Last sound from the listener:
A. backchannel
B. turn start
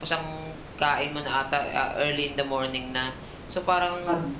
A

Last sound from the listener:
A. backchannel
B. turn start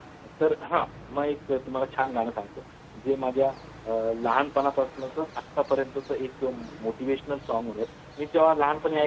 A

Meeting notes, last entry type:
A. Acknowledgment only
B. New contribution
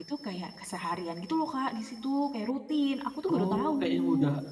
B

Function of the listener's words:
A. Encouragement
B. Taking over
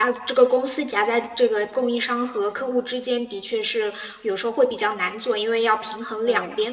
A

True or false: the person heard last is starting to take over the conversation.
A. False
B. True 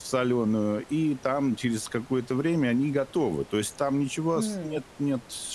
A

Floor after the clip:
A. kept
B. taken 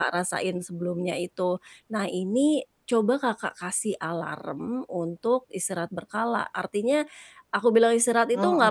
A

